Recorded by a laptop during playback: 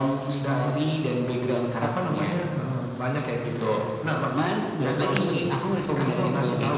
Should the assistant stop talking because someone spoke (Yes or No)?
No